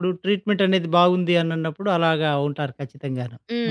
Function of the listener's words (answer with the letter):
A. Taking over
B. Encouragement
A